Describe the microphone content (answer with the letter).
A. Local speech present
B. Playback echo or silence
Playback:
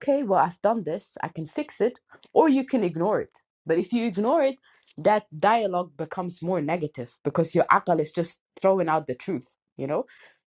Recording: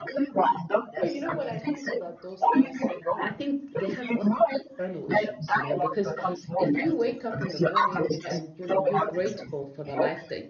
A